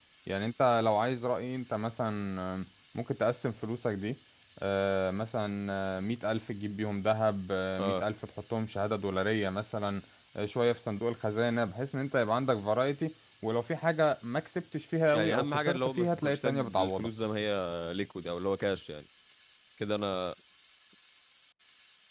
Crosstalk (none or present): present